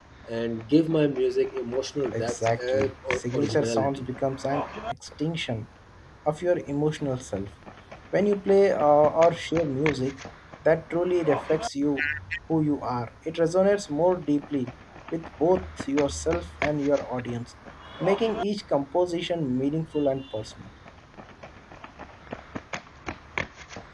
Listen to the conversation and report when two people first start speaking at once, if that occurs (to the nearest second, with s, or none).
2 s